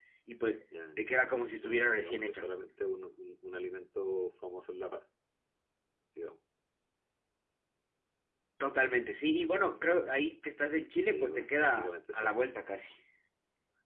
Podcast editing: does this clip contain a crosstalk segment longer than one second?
Yes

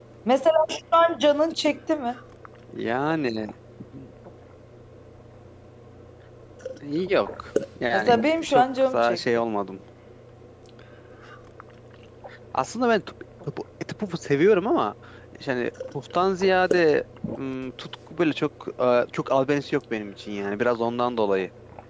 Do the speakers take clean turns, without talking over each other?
No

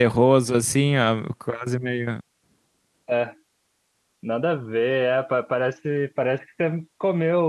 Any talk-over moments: No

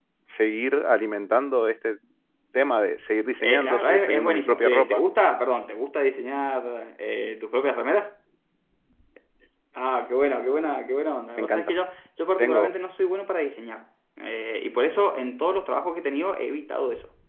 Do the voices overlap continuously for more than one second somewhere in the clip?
Yes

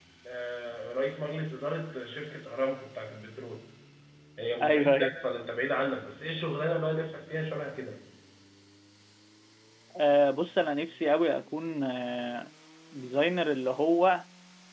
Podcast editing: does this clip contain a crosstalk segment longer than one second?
No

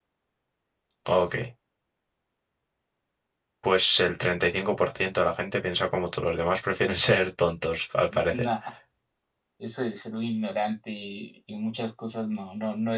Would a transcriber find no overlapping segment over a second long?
Yes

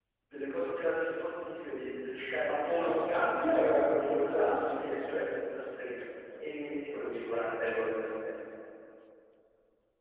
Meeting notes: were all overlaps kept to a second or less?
No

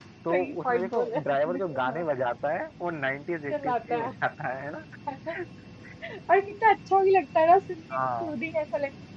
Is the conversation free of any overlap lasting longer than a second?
No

